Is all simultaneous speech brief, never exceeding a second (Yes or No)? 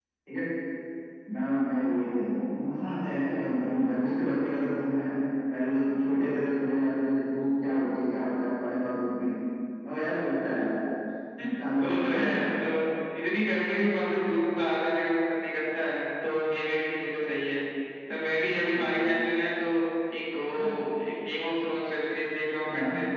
Yes